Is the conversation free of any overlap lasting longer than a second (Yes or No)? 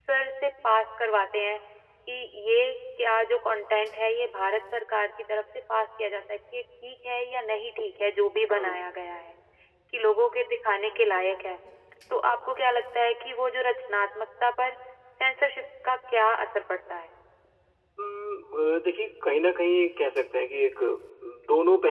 Yes